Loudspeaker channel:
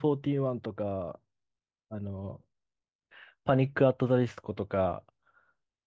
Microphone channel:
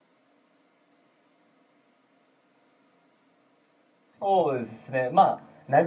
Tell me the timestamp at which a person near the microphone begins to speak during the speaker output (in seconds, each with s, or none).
4.2 s